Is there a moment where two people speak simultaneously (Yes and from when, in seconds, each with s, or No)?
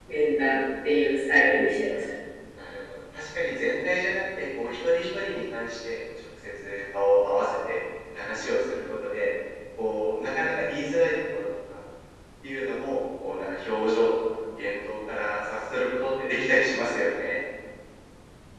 No